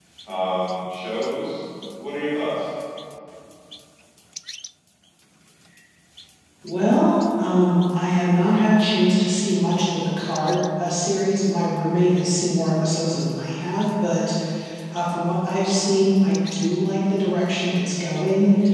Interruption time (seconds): none

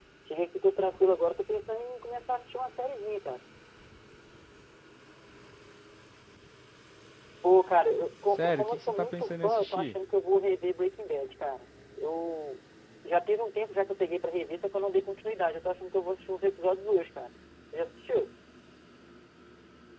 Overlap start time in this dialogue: 8.3 s

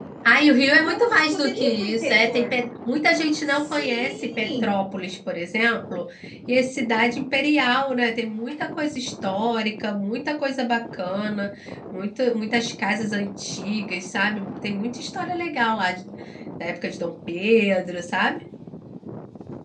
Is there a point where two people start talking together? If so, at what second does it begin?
0.6 s

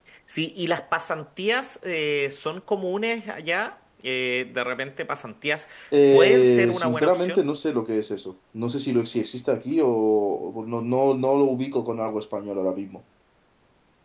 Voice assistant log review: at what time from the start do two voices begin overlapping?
6.1 s

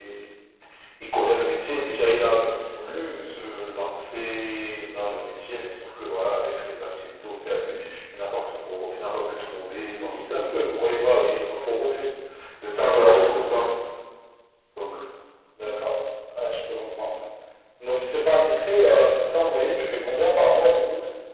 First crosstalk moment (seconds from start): none

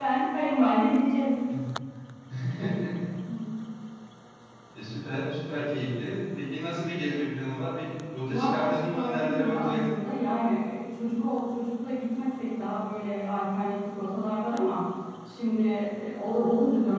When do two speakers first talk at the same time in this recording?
8.3 s

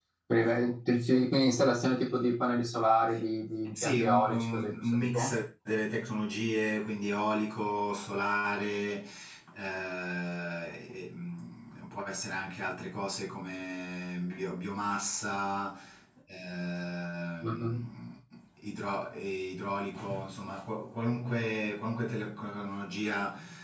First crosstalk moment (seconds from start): 3.8 s

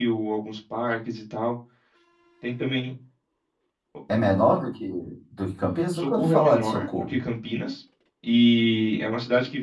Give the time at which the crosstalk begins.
6.0 s

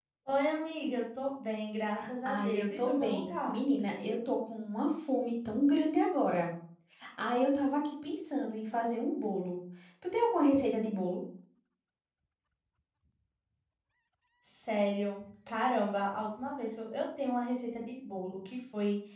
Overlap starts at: 2.2 s

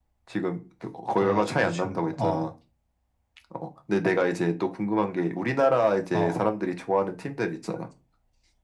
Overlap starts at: 1.2 s

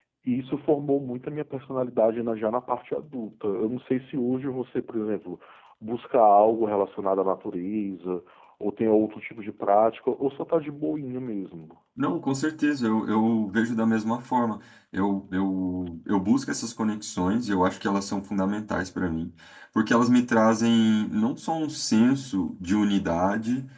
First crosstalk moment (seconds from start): none

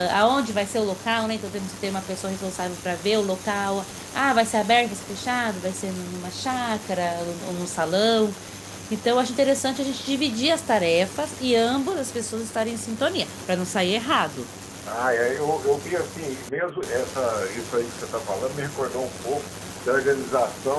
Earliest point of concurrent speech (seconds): none

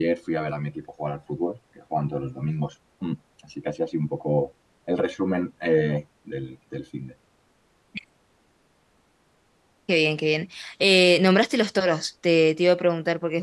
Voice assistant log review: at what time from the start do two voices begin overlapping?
none

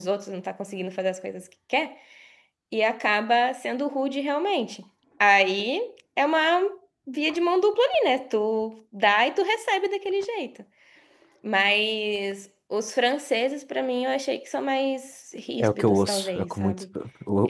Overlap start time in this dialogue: 15.6 s

